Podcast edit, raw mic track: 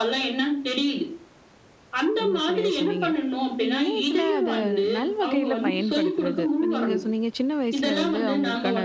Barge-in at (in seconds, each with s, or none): 2.2 s